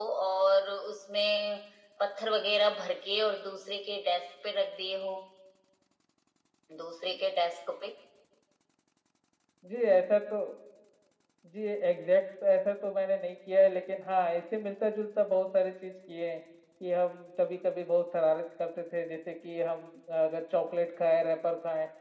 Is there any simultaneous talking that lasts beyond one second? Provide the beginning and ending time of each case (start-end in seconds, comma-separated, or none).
none